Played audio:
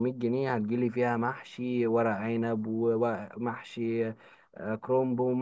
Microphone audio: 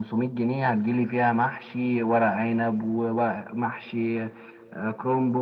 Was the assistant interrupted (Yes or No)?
No